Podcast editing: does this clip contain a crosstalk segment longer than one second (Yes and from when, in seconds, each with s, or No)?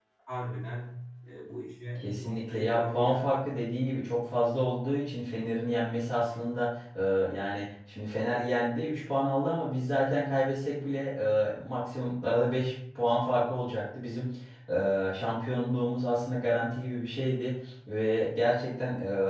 Yes, from 2.0 s